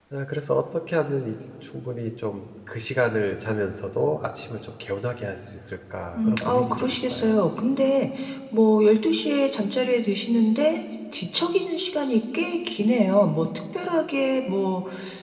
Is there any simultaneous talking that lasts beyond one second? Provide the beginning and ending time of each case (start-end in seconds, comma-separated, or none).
6.2-7.4